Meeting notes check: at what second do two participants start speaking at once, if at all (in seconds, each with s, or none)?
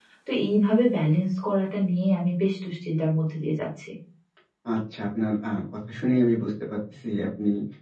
none